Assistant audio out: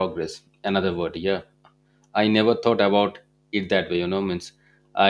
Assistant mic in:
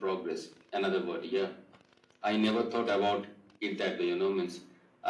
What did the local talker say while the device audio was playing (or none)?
none